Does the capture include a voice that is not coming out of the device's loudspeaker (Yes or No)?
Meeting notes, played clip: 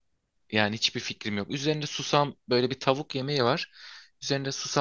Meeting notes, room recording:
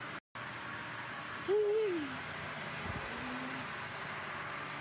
No